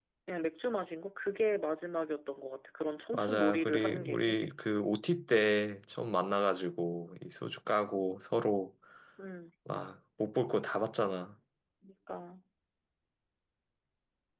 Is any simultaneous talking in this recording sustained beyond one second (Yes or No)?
Yes